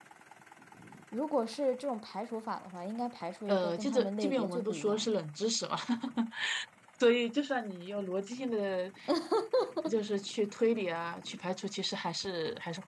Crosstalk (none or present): present